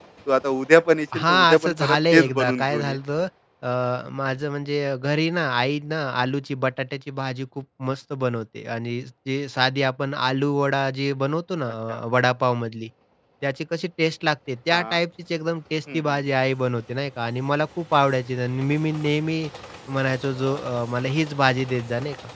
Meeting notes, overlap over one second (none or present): present